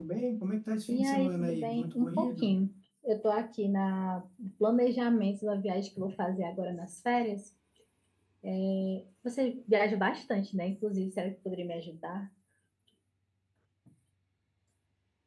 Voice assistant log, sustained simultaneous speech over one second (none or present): present